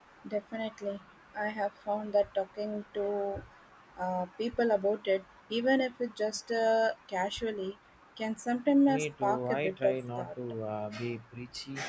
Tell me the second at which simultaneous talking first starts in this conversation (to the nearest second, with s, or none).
9 s